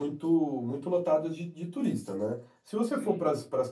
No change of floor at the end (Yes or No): Yes